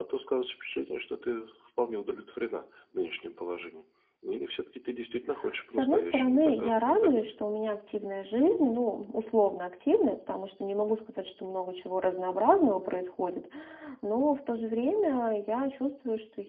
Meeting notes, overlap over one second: present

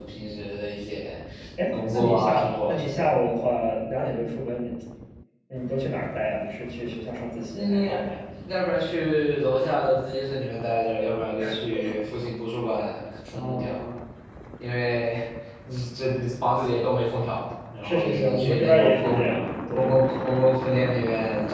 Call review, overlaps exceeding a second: present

